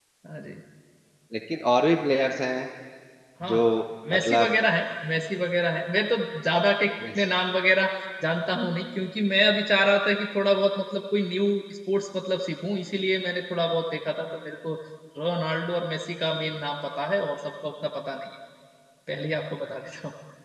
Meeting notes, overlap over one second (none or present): none